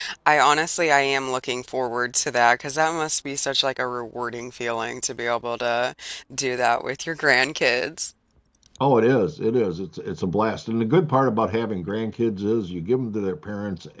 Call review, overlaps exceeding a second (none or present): none